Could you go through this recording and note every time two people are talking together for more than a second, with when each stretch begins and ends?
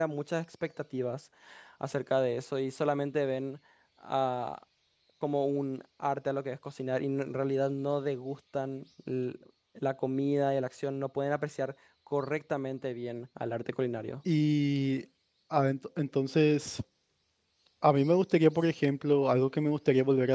none

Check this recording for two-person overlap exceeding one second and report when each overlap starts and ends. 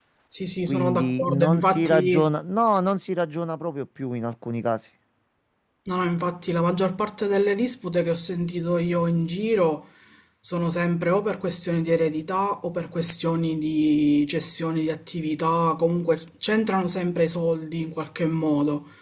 0.6-2.3

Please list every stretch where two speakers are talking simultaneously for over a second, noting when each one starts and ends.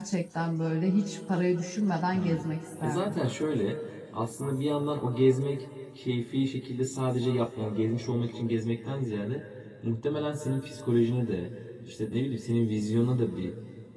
none

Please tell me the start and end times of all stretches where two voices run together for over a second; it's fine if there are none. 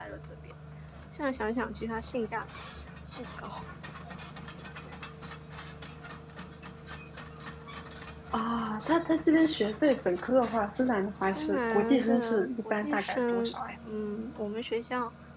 11.4-13.6

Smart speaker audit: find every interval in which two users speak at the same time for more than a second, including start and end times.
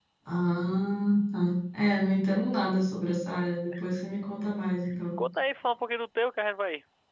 none

